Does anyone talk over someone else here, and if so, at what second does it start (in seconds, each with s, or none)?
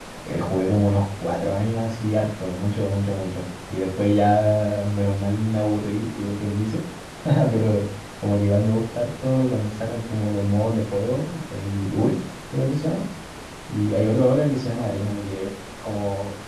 none